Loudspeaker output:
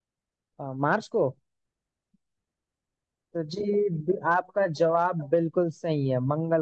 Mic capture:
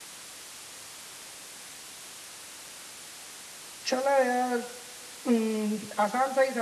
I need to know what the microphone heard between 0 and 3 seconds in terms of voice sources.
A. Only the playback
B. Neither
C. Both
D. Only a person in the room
B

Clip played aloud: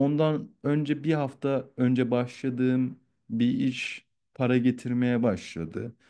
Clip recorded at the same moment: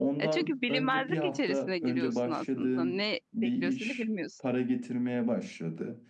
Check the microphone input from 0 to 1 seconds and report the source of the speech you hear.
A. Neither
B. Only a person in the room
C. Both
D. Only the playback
C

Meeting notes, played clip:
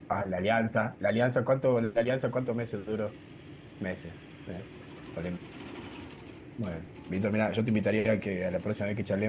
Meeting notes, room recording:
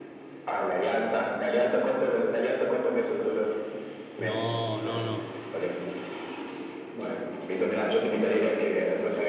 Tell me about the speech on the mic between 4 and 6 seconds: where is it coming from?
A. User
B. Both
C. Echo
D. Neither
B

